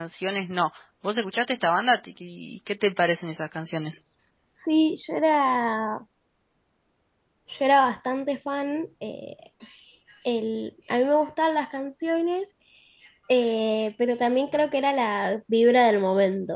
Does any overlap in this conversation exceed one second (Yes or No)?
No